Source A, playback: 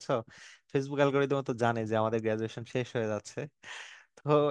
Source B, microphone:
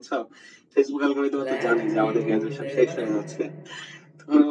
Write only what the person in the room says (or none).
প্ল্যান বি বলতে মানে